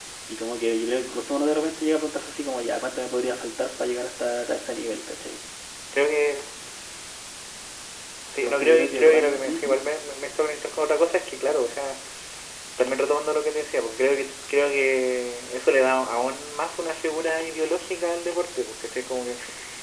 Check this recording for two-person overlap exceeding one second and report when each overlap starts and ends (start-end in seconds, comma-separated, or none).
8.4-9.7